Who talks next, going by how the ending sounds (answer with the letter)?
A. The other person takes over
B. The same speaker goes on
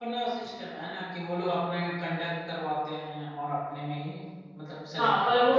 A